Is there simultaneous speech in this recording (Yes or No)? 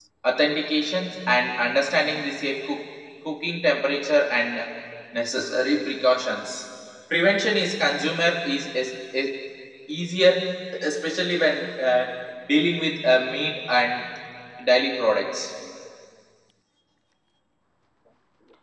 No